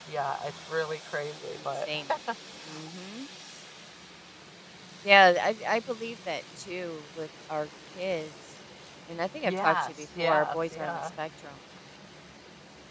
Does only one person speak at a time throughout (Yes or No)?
No